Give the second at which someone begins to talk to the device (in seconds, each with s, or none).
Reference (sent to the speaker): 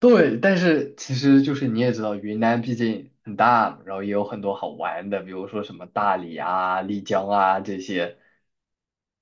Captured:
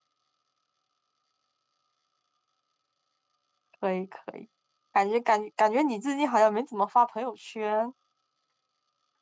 3.8 s